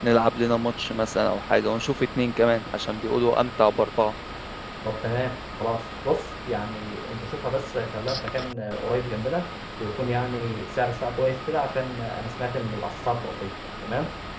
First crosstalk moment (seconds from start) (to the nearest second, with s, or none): none